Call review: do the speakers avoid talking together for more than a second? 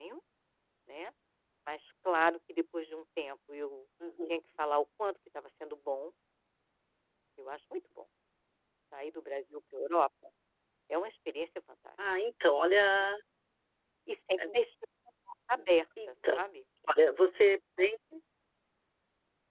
Yes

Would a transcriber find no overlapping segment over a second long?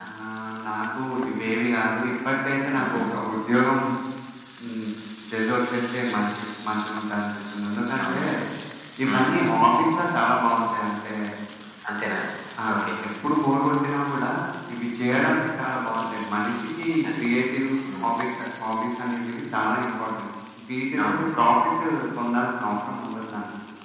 Yes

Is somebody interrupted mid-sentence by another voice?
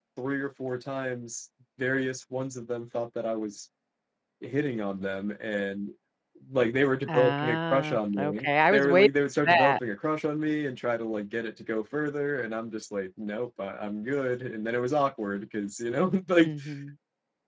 Yes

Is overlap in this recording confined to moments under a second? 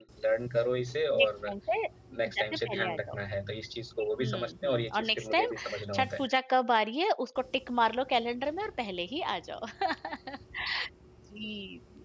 No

